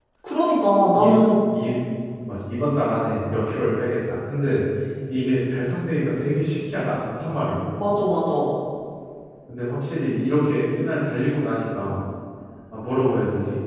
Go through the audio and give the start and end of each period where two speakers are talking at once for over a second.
none

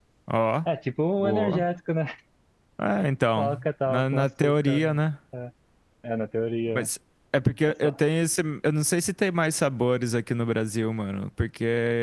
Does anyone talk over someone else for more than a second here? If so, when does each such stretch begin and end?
3.4-5.0

